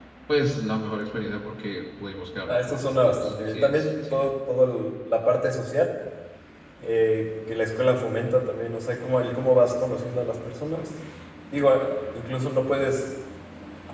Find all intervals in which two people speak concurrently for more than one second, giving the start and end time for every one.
2.4-4.3

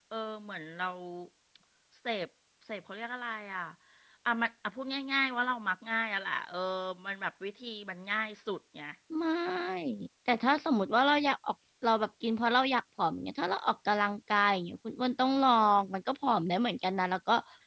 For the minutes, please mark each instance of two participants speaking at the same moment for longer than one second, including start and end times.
none

